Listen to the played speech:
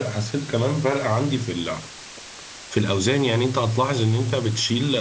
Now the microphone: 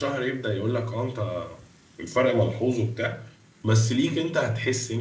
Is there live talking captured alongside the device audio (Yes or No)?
Yes